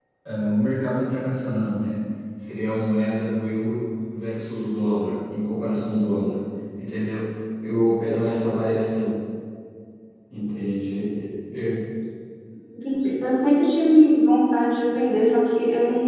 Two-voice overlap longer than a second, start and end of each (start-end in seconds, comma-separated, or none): none